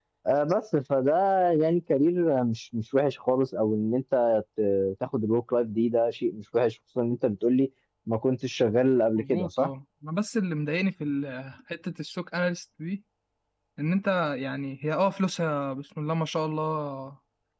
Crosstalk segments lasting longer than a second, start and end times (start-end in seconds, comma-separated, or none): none